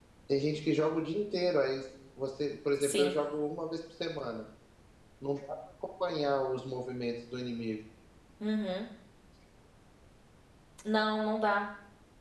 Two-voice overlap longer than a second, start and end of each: none

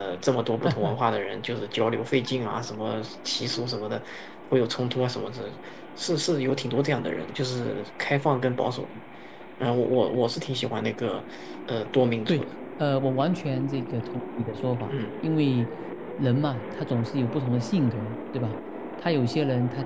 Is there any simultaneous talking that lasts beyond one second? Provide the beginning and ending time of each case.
none

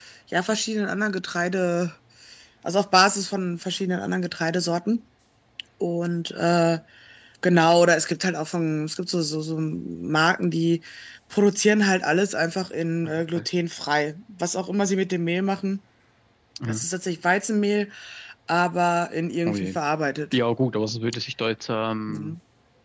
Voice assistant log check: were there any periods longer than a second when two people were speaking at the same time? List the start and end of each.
none

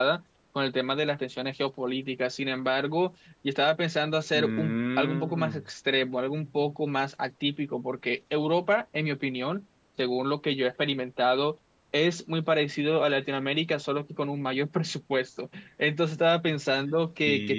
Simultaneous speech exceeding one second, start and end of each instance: 4.4-5.6

